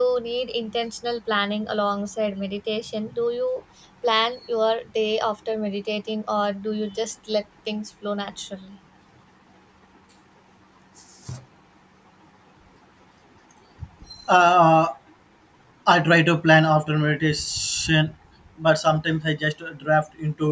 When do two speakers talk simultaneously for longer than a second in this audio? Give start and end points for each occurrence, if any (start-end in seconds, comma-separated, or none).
none